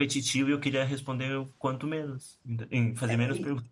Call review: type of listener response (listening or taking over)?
taking over